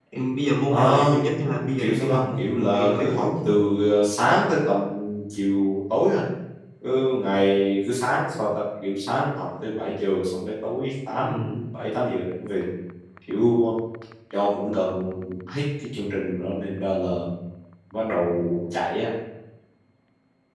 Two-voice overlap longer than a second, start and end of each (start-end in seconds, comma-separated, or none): 1.8-3.2